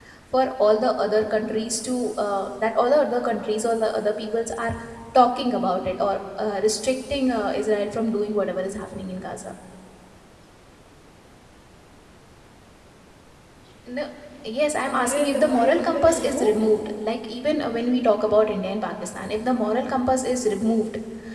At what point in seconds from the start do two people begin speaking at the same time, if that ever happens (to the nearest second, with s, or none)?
15 s